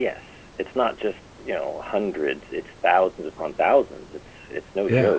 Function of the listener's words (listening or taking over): listening